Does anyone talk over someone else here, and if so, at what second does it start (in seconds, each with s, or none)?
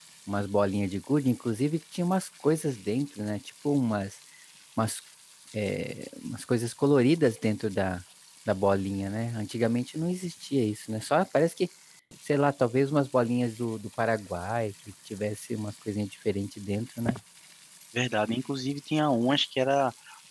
none